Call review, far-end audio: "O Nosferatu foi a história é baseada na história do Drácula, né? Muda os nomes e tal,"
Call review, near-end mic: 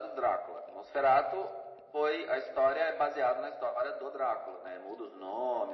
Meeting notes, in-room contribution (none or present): none